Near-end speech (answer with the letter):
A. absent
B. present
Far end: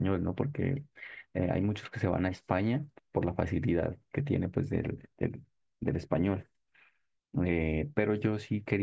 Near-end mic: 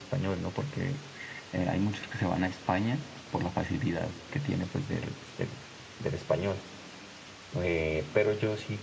A